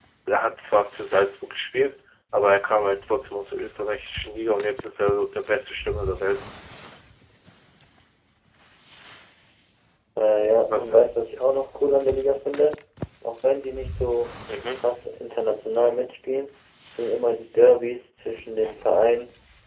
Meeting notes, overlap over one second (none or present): none